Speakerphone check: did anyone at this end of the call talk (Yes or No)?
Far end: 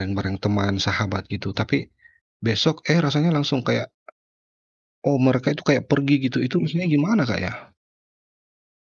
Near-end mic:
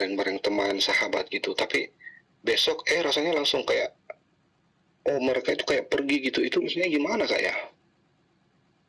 No